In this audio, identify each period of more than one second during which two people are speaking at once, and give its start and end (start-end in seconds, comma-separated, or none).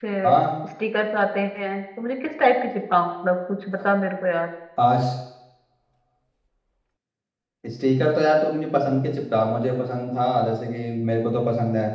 none